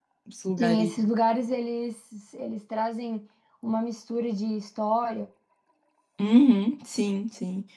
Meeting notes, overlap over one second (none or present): none